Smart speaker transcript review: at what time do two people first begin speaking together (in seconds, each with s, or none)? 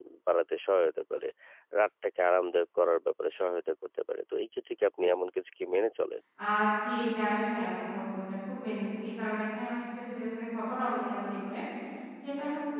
none